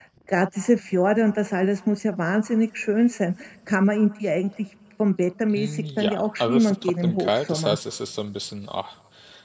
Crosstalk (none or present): present